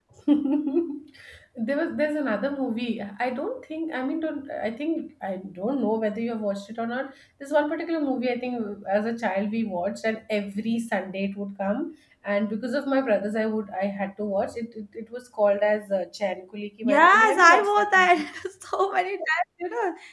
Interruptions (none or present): present